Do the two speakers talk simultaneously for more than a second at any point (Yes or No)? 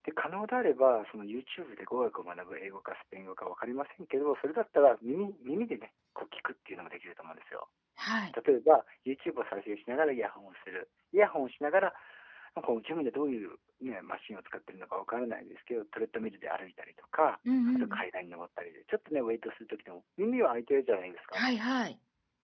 No